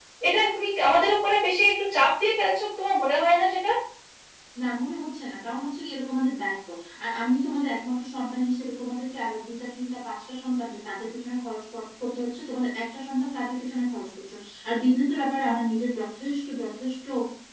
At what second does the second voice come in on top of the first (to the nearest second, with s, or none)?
none